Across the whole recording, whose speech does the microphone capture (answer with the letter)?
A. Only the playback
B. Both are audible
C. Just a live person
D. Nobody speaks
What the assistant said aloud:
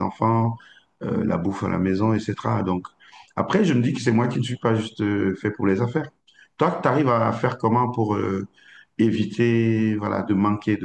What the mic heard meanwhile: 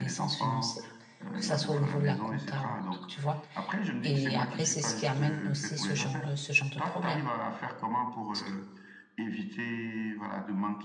B